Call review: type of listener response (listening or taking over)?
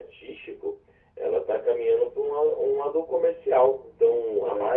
listening